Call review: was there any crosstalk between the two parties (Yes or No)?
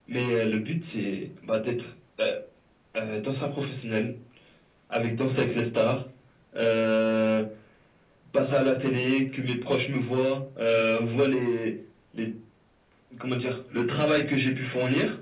No